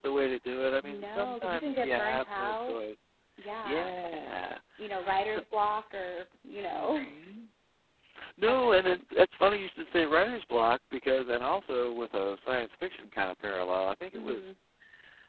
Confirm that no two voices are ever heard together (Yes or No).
No